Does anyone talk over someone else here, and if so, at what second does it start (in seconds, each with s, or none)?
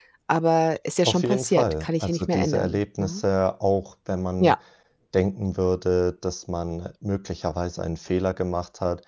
1.1 s